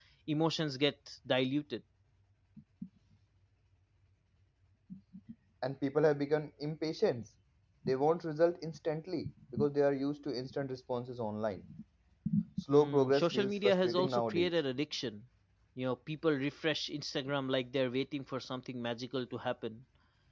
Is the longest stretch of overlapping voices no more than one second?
No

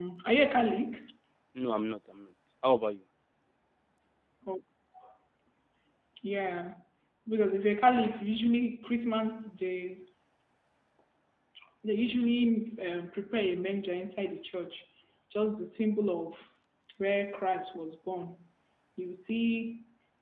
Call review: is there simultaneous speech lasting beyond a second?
No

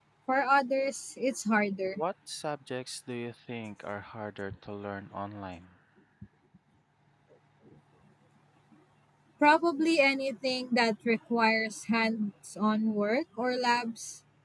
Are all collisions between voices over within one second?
Yes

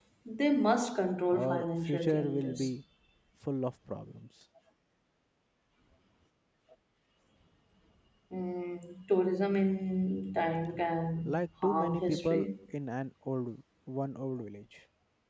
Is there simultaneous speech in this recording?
Yes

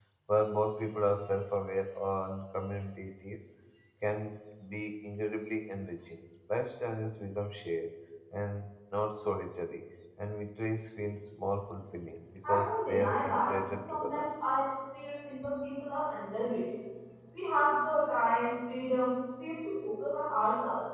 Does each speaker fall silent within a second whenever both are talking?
No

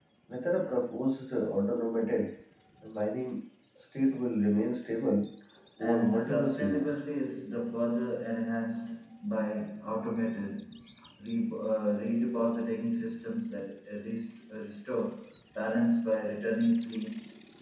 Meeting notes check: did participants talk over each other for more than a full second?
Yes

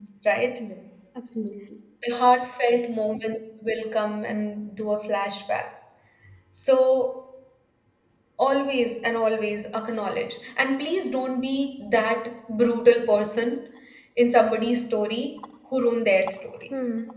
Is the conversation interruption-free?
Yes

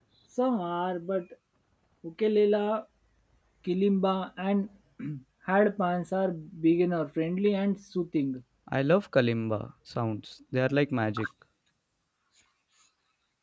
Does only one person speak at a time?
Yes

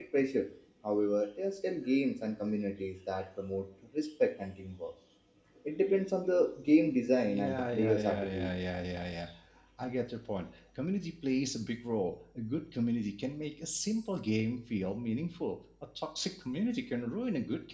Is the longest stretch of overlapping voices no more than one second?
No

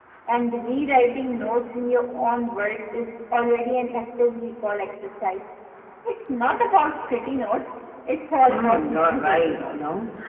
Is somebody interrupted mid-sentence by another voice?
Yes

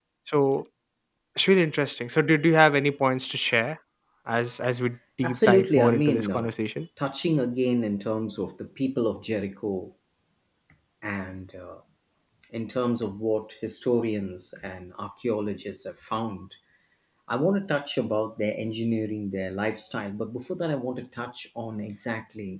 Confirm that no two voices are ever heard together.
No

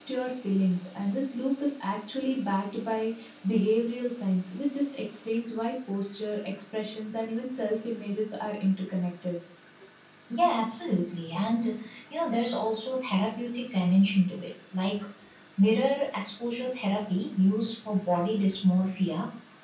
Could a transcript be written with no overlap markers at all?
Yes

